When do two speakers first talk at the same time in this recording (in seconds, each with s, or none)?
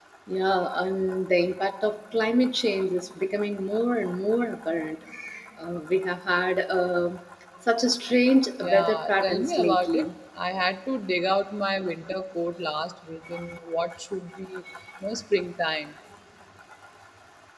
8.6 s